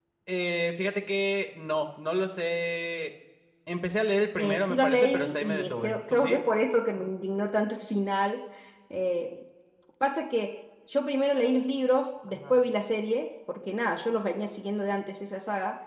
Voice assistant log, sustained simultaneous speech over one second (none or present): present